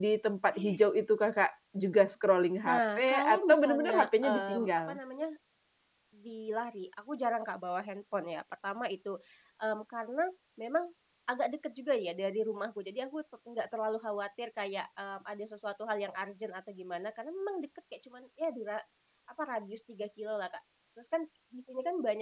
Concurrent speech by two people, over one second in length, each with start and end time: 2.6-5.0

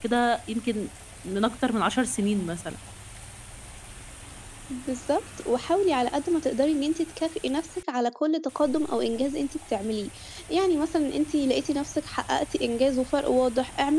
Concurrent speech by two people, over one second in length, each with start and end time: none

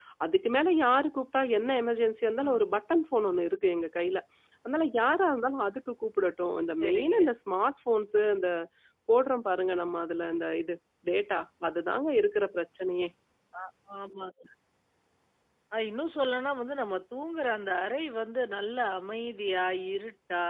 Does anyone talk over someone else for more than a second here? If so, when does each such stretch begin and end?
none

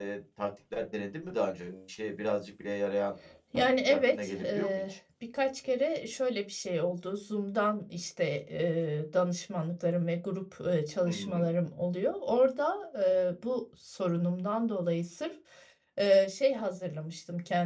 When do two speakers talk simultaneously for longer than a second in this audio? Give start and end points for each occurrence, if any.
3.5-4.8

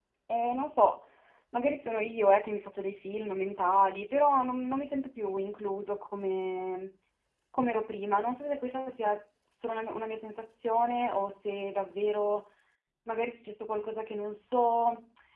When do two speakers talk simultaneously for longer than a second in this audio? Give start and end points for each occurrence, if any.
none

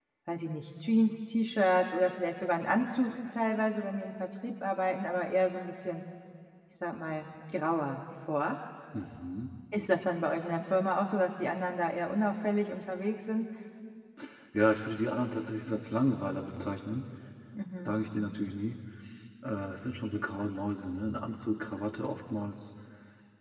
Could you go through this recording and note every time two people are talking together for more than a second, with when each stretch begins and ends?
none

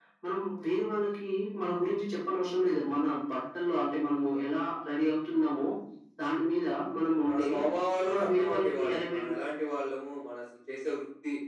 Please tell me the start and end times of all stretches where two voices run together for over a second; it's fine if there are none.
8.1-9.3

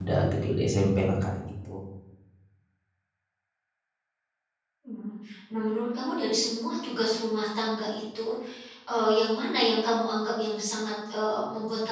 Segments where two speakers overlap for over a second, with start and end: none

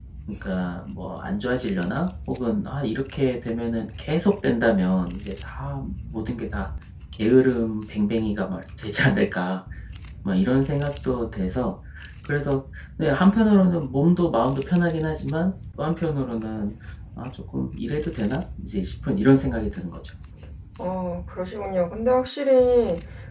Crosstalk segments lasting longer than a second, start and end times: none

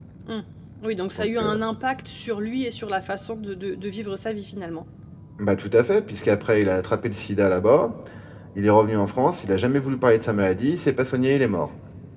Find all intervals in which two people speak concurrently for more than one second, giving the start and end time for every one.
none

